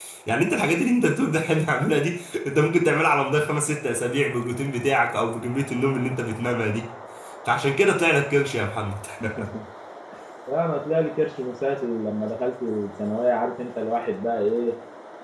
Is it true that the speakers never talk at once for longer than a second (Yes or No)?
Yes